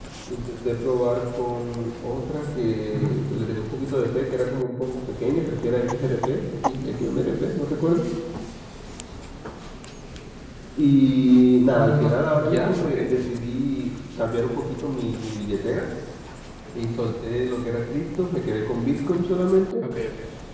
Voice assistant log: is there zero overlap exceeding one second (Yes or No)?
No